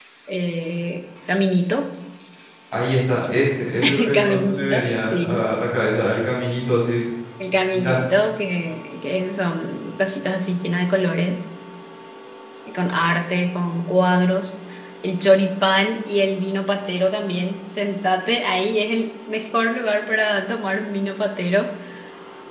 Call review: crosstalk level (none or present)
present